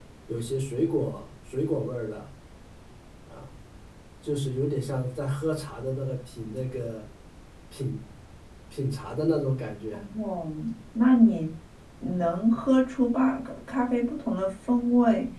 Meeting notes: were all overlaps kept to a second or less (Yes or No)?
Yes